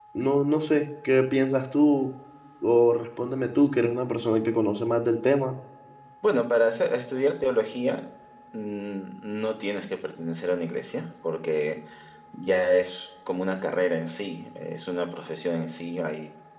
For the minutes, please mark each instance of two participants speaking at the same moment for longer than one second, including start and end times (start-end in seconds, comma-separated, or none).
none